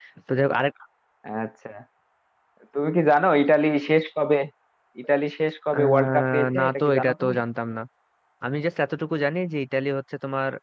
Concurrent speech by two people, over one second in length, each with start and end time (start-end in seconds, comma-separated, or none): 5.7-7.4